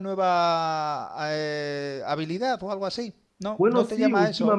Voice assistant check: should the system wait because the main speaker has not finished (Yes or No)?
No